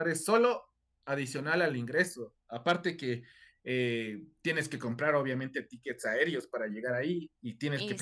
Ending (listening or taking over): listening